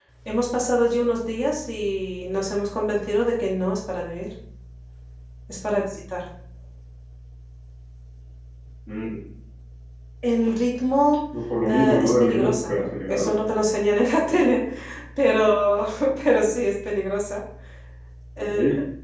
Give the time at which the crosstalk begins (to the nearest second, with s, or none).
12 s